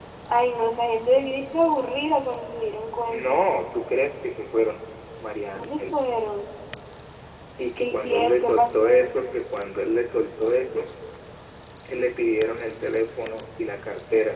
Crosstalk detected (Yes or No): Yes